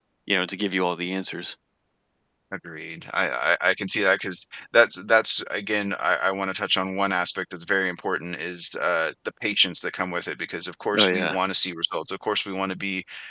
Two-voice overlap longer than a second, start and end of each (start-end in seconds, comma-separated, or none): none